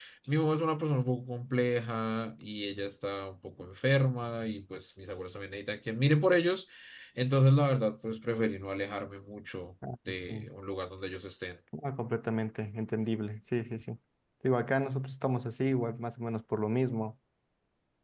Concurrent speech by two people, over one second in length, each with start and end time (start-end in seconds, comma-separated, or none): none